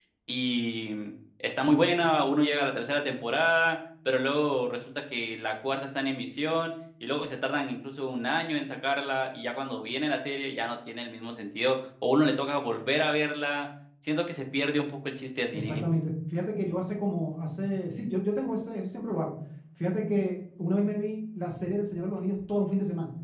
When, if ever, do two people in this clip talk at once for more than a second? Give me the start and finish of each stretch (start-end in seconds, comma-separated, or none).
none